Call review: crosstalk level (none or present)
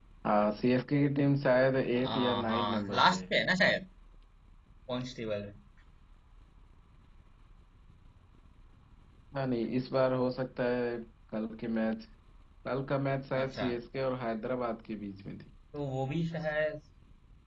present